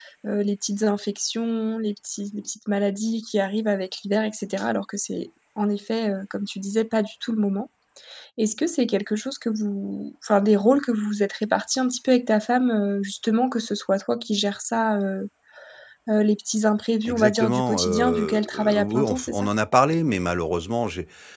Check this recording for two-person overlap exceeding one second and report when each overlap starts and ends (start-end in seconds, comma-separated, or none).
17.1-19.5